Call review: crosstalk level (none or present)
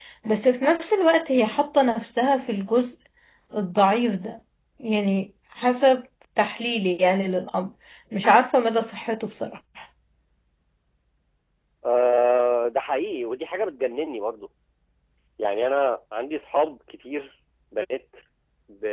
none